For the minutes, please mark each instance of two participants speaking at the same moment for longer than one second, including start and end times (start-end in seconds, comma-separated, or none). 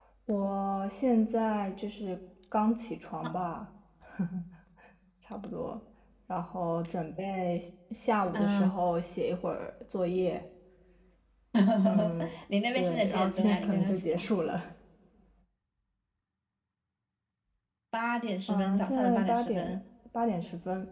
12.7-14.3, 18.5-19.7